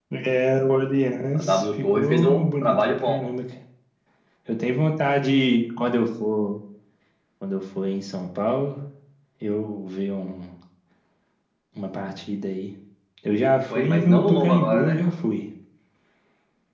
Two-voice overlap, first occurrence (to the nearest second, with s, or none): 1 s